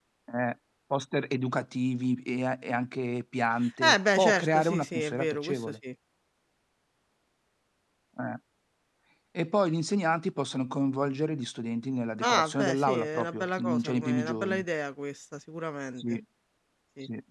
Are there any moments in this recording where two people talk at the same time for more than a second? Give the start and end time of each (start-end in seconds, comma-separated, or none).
3.8-5.7, 12.2-14.6